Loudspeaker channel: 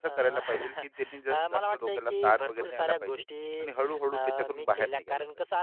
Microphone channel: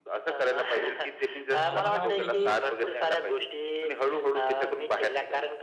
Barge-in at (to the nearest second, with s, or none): 1 s